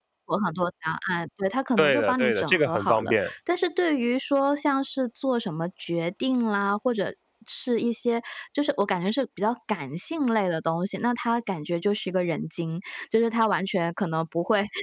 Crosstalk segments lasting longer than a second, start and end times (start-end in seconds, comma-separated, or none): 1.8-3.3